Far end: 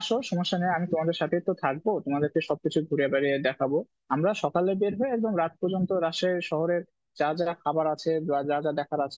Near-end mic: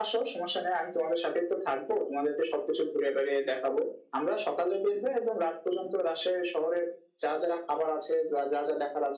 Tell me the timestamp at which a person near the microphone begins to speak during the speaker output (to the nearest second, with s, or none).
none